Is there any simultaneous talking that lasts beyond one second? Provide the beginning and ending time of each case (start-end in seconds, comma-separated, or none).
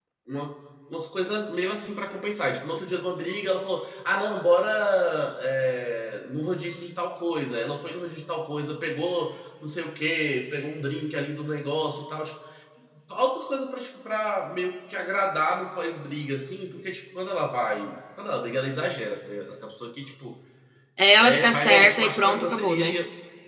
21.2-23.0